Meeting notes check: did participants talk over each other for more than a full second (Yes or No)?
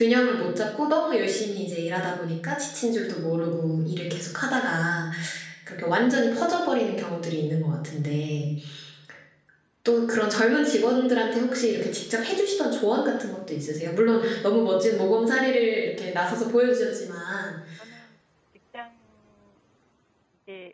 No